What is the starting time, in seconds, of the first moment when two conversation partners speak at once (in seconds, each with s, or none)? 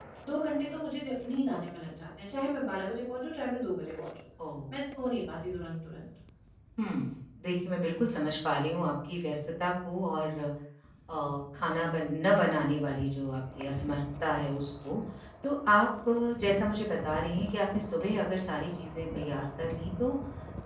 none